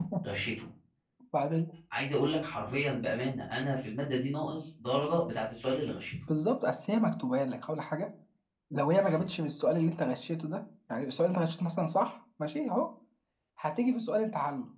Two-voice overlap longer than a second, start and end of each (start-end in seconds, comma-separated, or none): none